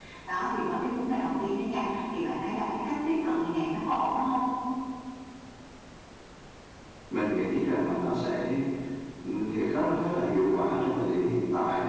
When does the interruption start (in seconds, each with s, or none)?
none